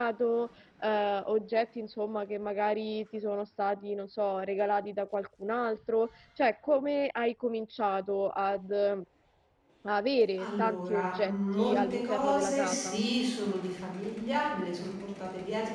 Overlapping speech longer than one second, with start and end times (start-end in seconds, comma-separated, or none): 10.4-13.0